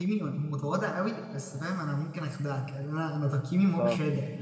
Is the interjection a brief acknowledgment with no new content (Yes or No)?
Yes